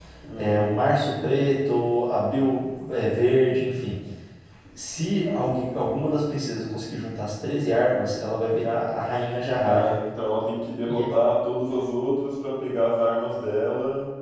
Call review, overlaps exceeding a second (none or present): none